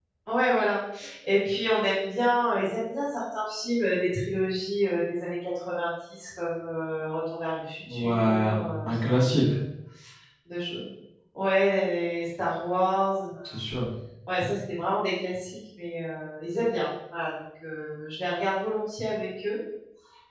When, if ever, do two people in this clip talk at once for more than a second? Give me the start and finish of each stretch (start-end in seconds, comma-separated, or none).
7.9-9.4